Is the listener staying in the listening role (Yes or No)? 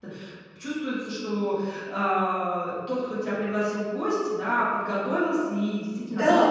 No